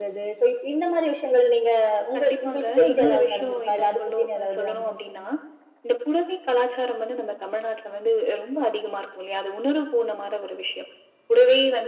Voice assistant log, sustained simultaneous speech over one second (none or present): present